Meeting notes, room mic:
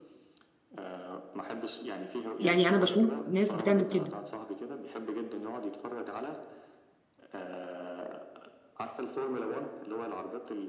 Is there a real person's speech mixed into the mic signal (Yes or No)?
Yes